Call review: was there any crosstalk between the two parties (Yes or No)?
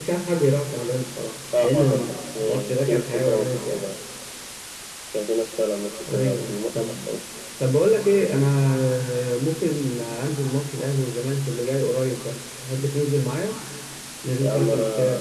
Yes